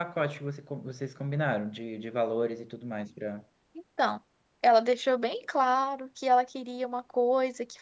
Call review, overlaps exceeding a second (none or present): none